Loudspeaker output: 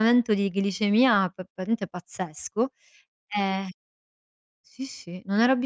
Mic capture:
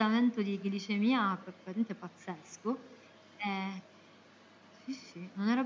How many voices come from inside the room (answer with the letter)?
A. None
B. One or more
A